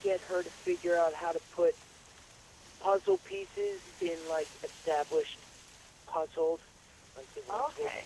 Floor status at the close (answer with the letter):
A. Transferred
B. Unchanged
B